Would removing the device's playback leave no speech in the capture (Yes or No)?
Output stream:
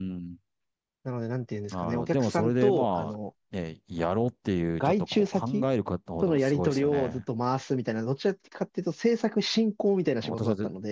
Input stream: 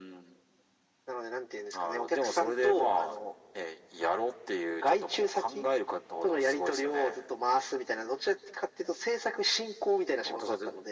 Yes